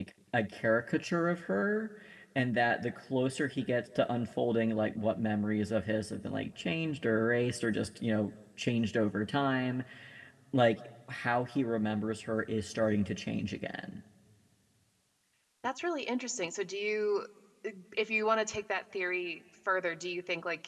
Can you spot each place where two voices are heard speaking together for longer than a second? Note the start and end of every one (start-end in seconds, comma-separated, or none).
none